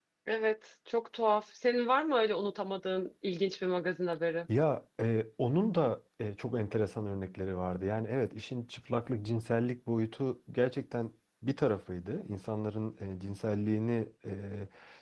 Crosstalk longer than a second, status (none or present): none